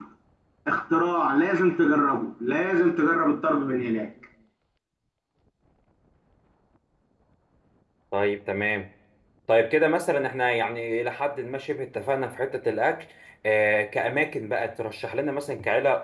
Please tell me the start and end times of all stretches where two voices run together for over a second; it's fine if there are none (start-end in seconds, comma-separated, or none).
none